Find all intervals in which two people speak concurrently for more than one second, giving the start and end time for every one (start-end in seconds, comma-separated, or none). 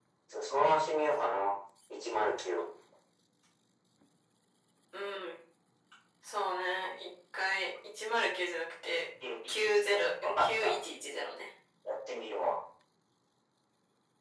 9.5-10.7